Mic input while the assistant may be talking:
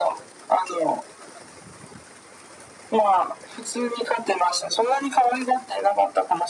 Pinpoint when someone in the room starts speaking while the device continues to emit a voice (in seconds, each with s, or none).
none